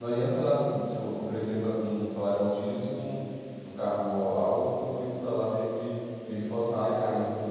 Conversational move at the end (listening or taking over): taking over